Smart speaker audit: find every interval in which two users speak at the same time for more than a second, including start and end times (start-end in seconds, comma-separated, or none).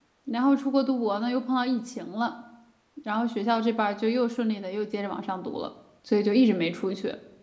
none